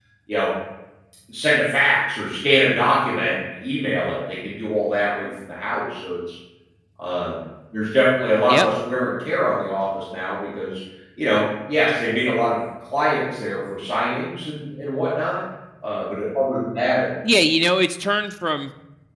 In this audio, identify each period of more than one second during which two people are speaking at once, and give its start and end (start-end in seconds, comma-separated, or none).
none